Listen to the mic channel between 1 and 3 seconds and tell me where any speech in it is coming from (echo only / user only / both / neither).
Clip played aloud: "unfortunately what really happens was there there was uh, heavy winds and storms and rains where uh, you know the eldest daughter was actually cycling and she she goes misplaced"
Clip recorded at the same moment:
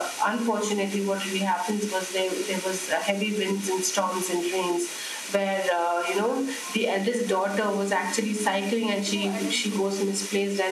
echo only